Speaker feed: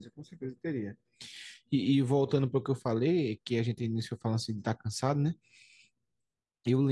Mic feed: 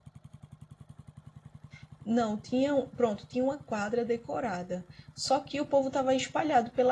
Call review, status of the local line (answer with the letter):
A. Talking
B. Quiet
A